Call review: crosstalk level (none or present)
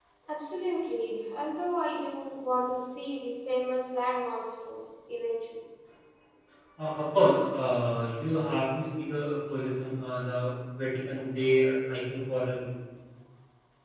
none